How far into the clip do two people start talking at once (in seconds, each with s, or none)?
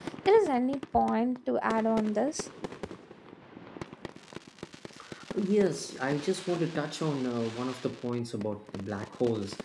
none